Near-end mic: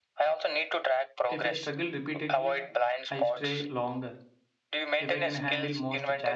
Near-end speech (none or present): present